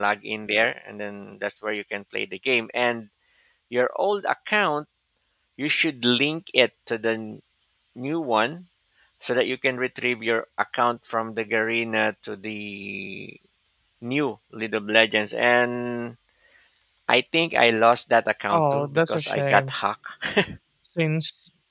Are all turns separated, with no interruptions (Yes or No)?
No